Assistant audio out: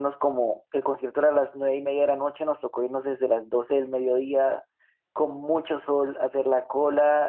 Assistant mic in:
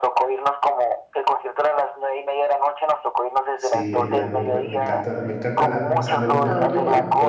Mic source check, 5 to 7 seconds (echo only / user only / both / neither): both